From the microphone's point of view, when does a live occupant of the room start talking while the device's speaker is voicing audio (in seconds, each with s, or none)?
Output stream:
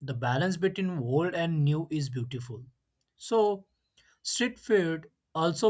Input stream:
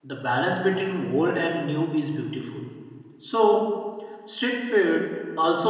none